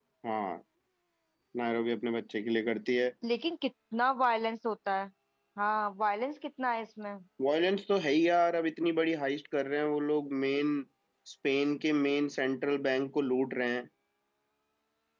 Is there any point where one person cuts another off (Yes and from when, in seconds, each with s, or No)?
No